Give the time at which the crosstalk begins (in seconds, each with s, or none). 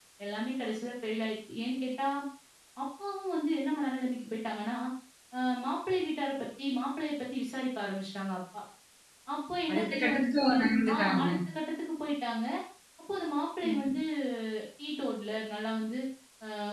9.7 s